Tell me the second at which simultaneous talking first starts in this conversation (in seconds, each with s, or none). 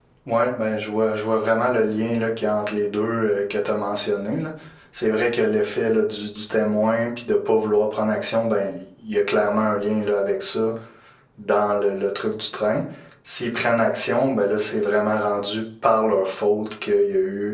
none